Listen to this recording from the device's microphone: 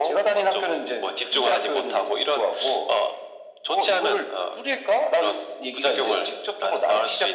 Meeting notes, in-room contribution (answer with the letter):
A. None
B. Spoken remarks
A